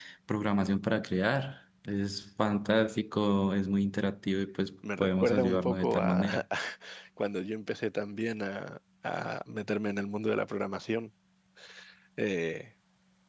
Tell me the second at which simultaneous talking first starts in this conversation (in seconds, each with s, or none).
4.8 s